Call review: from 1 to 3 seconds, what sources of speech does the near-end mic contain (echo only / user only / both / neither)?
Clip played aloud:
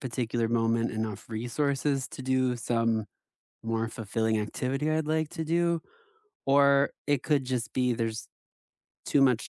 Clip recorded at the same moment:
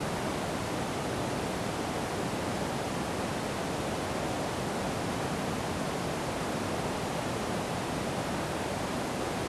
neither